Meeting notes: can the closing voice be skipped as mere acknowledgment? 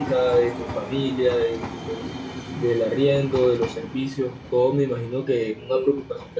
Yes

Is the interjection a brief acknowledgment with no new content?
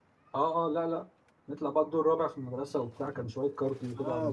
No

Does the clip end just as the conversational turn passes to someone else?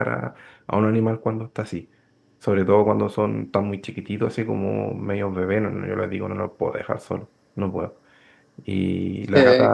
No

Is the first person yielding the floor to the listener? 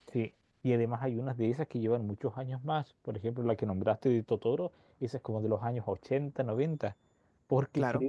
No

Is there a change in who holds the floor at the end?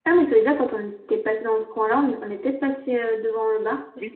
Yes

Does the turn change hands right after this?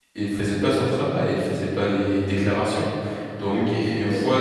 No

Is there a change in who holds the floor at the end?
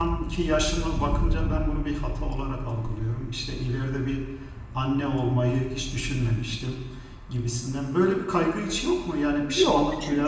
Yes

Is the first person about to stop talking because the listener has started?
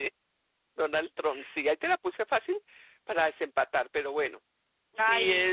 No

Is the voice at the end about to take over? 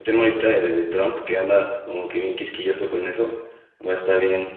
No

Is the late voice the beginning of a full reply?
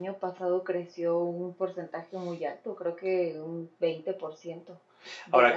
No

